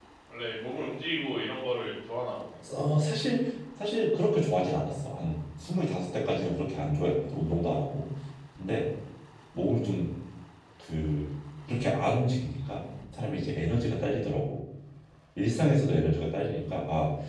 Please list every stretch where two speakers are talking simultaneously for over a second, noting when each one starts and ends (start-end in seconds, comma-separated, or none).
none